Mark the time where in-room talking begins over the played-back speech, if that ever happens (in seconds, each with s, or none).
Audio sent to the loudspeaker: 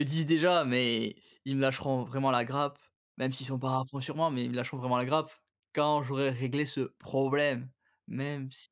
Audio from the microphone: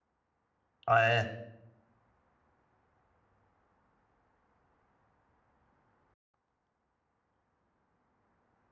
0.9 s